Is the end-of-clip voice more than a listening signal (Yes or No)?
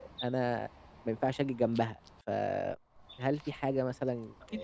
No